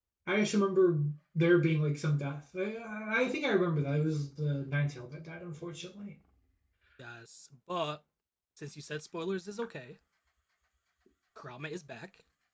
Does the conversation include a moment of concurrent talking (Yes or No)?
No